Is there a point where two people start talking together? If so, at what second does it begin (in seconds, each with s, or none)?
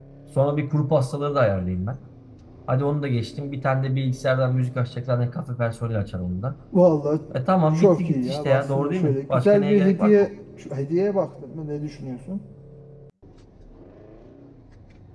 7.7 s